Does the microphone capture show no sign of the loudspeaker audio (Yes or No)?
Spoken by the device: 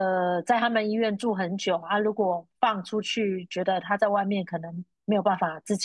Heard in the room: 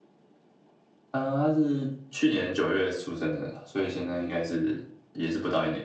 Yes